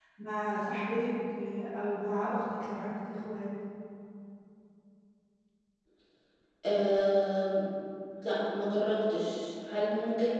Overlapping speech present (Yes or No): No